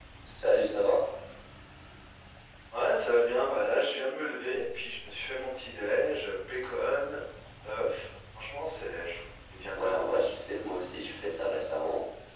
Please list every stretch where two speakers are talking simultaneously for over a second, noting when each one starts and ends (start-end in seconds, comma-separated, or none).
none